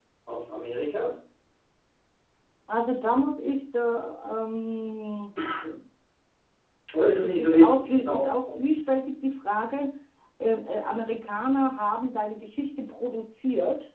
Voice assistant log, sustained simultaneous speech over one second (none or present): present